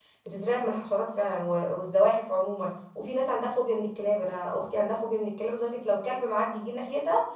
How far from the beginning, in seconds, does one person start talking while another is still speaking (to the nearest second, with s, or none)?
none